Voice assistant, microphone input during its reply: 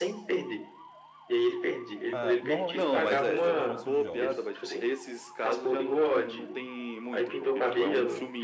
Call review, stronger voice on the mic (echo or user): echo